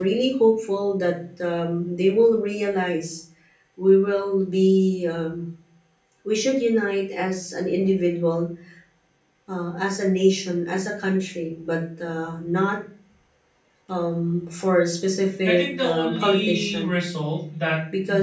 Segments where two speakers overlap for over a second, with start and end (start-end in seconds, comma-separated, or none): 15.4-17.0